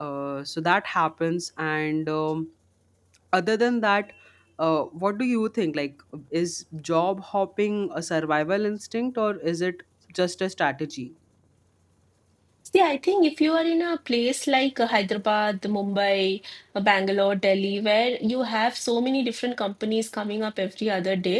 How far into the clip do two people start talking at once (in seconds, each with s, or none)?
none